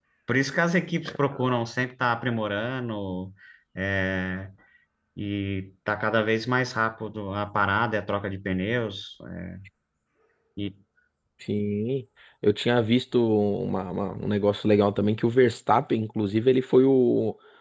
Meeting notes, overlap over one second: none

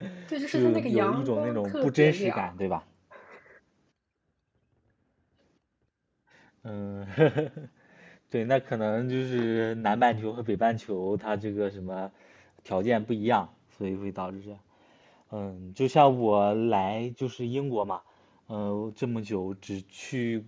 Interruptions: present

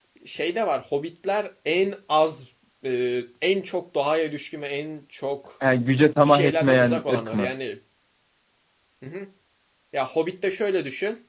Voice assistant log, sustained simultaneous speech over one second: present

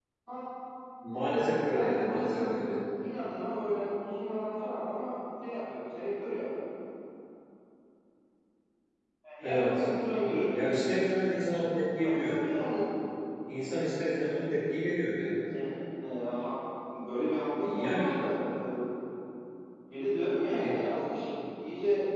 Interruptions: present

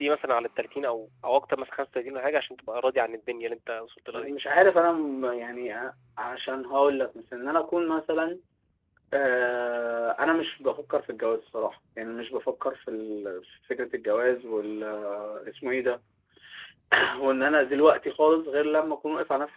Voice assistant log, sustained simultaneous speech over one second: none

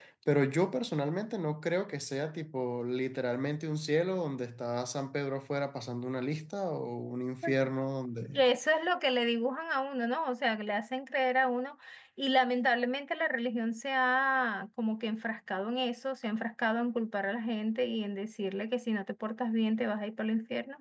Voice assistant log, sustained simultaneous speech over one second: none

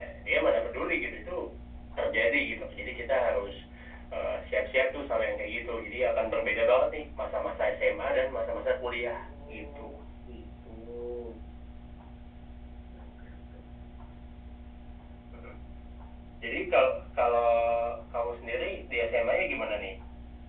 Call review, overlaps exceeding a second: none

